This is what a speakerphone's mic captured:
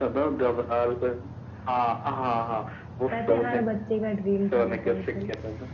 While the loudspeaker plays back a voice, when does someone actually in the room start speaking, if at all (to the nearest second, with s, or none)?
3 s